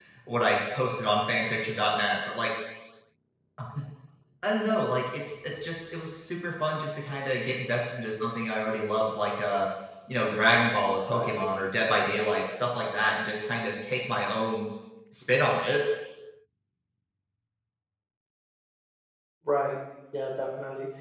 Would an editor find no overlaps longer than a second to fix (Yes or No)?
Yes